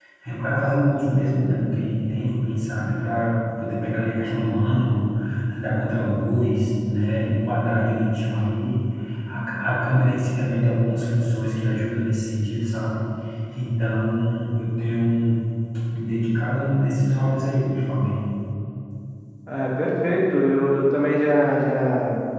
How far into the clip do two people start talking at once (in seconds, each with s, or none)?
none